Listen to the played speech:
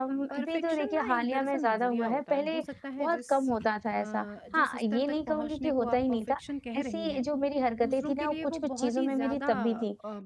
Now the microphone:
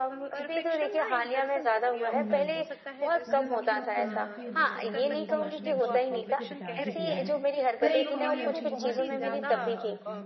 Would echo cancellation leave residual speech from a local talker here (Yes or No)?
Yes